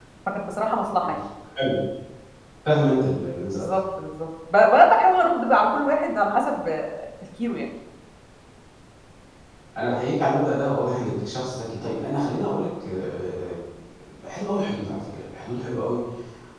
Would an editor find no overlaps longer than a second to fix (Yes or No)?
Yes